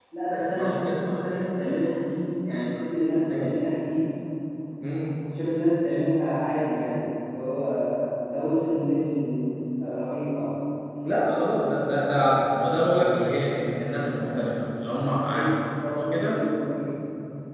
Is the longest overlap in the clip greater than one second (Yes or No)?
No